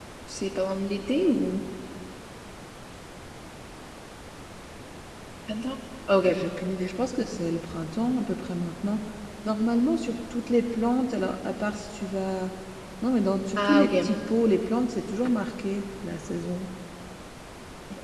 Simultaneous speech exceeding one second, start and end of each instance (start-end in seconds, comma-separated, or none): none